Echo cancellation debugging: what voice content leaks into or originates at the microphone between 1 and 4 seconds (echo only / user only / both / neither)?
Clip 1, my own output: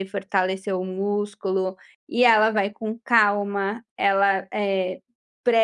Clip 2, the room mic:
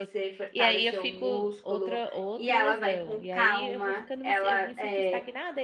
both